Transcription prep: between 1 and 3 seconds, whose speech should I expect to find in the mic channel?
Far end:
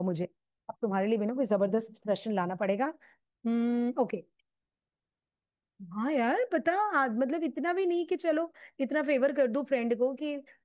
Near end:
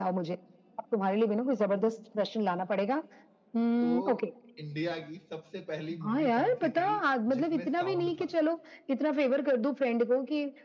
echo only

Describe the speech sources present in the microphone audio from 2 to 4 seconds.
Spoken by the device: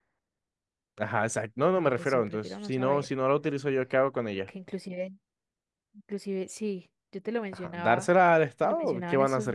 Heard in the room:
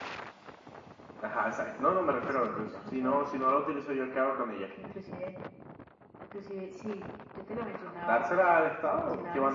echo only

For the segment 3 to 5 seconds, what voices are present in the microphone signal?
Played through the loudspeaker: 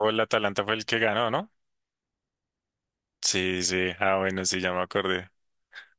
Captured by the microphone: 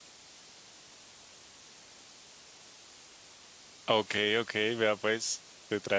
user only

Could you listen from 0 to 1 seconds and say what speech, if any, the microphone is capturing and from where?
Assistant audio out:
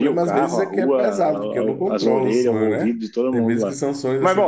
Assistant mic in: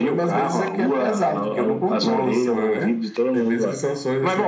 echo only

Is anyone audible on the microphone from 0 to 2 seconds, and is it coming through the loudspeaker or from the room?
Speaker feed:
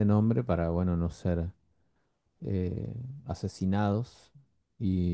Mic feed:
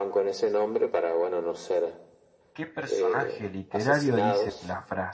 echo only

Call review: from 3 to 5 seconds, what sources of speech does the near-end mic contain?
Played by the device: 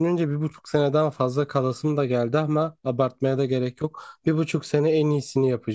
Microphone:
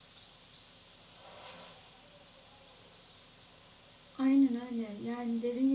user only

